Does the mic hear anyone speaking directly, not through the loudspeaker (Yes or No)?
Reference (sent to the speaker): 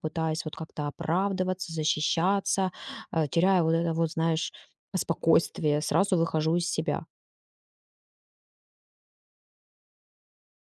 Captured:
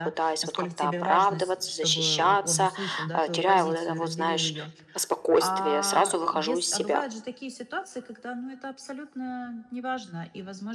Yes